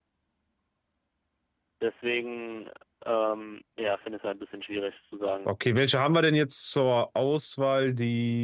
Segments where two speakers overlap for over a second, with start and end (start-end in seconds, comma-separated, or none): none